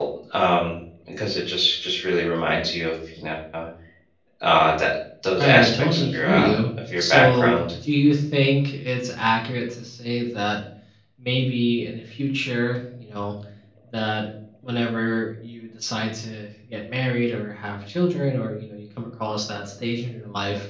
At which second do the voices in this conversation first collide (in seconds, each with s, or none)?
5.4 s